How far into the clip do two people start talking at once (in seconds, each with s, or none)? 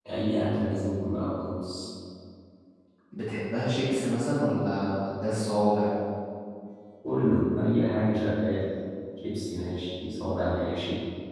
none